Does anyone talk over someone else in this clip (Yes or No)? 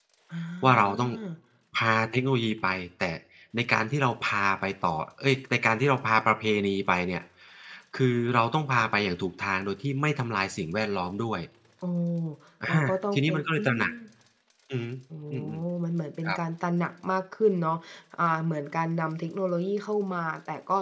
Yes